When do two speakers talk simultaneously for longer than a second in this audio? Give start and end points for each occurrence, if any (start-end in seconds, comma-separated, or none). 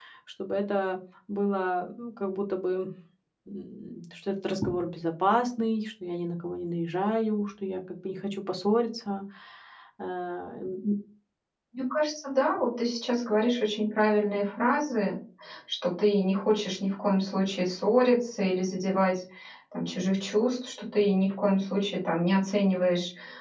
none